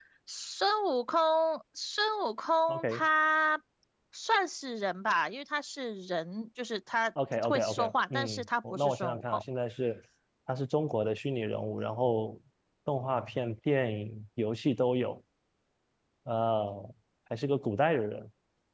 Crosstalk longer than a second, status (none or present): present